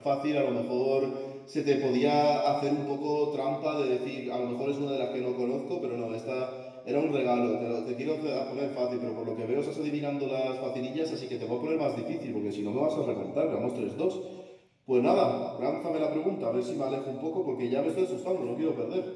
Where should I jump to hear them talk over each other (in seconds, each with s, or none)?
none